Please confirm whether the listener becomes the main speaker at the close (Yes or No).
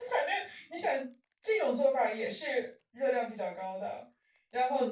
No